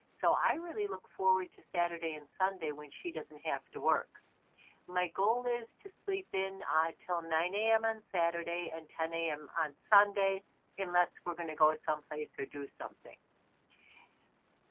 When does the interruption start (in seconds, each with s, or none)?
none